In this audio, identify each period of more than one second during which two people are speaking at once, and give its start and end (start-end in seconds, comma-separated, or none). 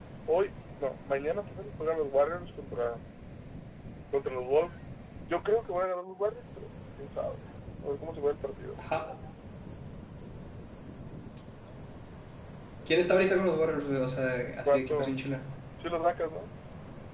none